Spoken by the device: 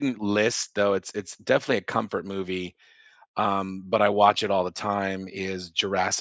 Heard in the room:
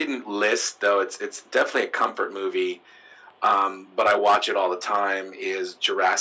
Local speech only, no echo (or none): none